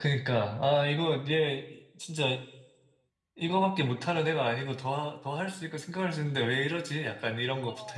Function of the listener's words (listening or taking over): taking over